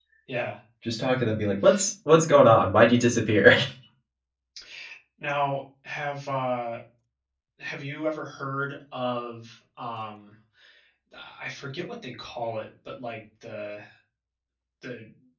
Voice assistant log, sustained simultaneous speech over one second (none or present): none